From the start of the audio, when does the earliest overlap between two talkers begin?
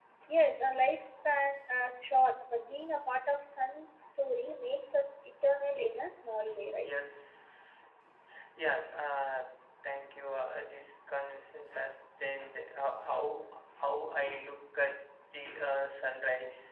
none

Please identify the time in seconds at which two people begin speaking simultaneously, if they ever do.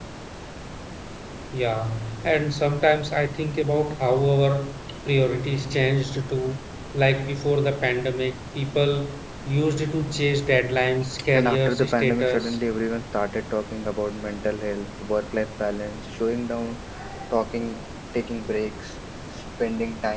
11.1 s

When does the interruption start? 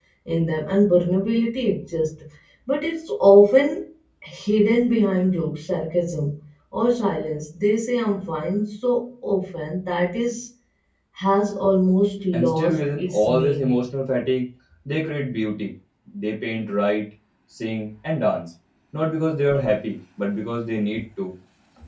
12.3 s

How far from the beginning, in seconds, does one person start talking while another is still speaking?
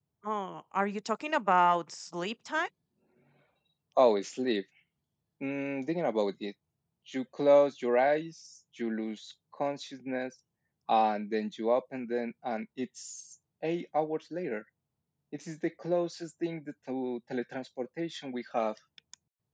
none

